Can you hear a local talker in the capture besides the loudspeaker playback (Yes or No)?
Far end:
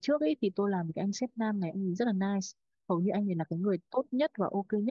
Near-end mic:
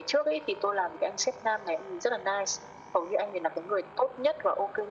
No